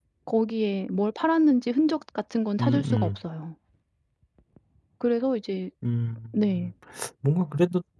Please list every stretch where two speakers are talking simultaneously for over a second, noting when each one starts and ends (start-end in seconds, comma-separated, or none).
none